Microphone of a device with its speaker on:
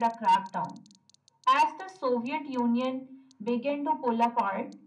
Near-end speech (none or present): none